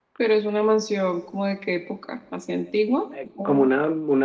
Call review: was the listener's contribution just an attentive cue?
No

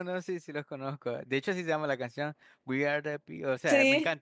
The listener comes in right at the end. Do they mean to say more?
No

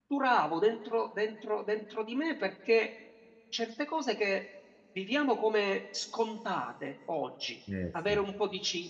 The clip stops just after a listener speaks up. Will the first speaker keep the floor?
Yes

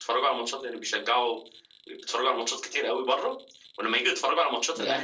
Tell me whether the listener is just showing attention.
Yes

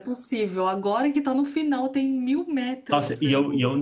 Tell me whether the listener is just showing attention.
No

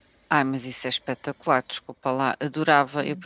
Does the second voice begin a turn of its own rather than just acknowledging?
No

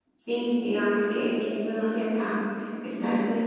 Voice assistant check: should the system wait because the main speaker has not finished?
Yes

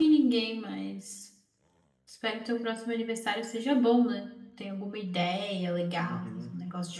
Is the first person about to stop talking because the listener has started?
Yes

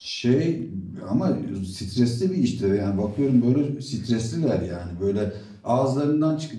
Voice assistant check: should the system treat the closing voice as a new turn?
No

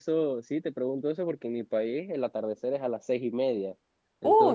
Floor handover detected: Yes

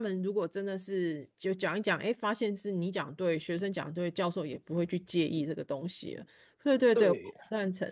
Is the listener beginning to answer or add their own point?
Yes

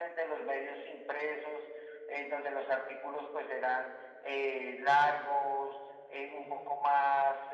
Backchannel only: Yes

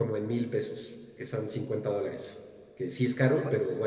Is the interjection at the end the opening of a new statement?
No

